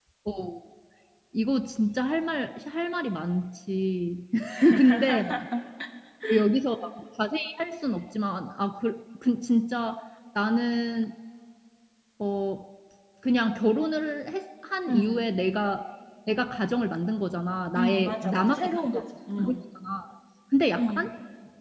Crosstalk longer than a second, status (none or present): present